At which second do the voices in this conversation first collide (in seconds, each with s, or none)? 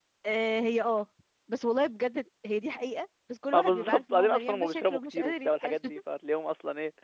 3.5 s